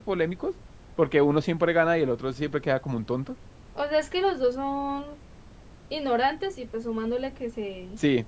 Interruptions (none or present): none